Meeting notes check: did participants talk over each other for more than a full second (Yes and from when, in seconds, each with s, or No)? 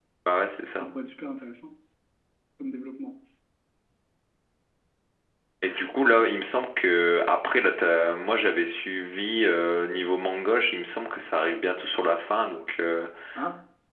No